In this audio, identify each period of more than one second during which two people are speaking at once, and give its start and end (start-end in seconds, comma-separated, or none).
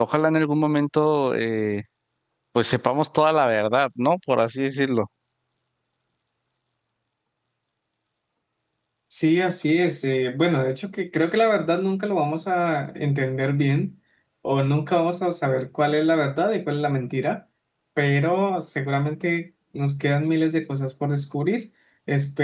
none